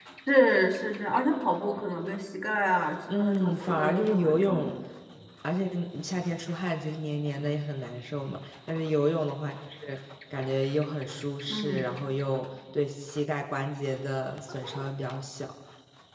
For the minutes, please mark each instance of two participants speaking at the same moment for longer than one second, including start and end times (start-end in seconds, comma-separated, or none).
3.1-4.7